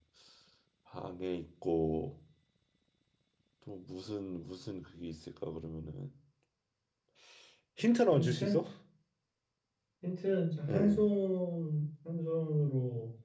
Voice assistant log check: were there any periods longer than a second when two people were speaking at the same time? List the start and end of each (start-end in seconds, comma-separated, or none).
none